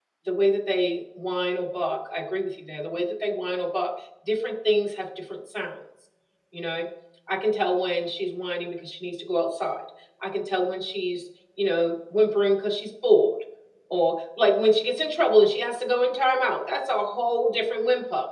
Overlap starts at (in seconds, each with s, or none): none